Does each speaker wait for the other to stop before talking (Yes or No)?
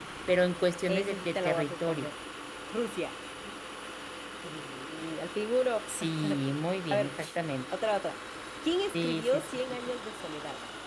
No